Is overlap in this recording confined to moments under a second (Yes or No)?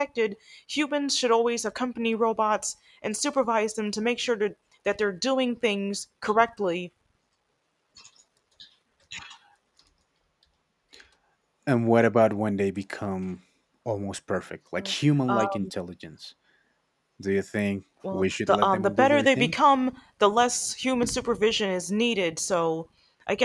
No